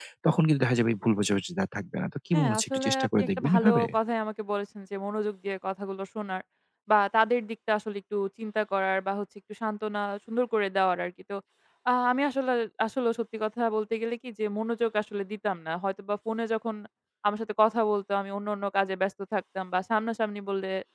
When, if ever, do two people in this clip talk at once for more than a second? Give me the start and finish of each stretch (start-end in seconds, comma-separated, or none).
2.3-3.8